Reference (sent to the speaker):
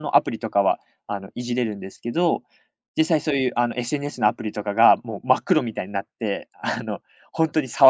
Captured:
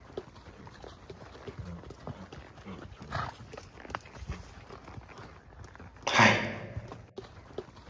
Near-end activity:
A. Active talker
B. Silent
A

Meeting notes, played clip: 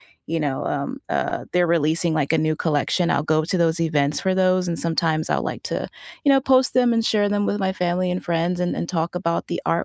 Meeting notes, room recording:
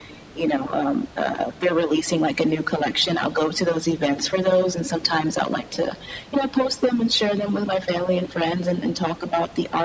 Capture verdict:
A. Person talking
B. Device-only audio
B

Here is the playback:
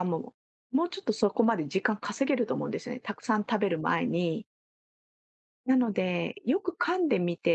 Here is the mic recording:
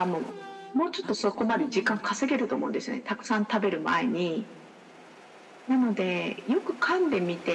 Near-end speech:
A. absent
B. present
B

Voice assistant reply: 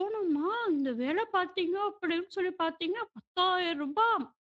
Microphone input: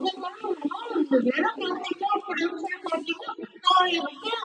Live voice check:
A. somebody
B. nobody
B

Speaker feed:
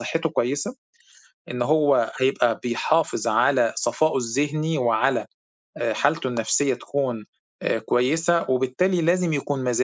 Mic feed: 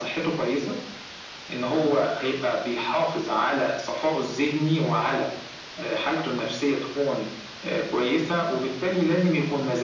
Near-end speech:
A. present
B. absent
B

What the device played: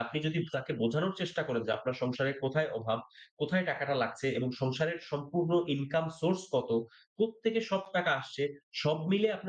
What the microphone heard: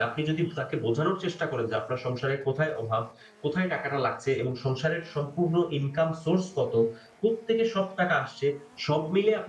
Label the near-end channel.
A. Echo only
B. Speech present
A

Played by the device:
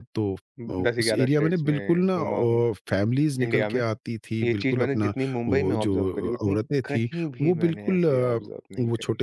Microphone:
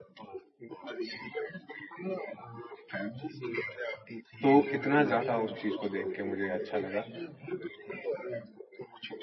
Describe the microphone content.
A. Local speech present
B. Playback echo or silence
A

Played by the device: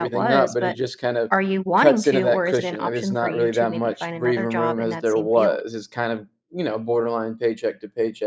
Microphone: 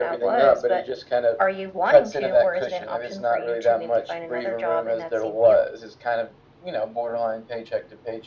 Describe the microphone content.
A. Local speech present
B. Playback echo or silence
B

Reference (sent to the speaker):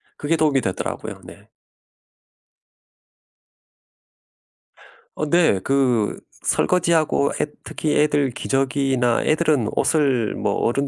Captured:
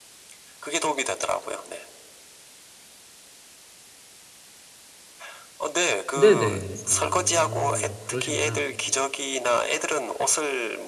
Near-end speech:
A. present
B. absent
A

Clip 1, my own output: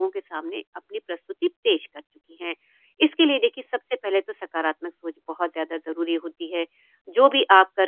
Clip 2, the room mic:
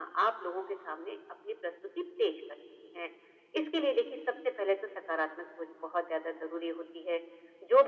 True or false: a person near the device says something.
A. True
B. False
B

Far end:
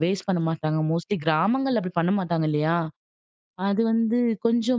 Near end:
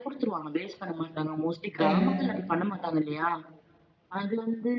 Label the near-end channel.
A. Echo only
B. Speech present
B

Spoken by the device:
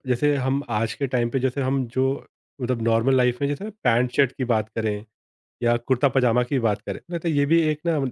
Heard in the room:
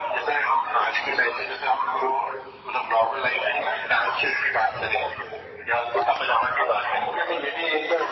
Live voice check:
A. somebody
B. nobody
B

